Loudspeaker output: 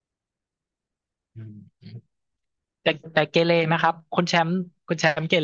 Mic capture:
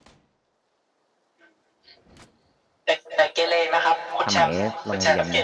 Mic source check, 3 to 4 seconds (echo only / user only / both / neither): echo only